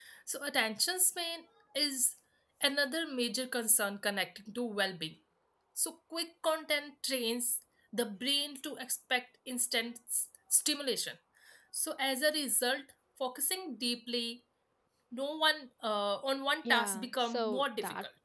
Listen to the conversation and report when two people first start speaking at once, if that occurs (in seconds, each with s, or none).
16.6 s